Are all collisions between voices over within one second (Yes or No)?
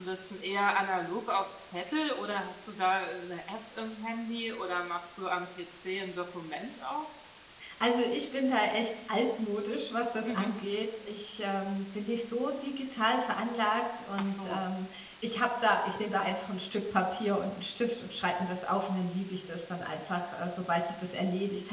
Yes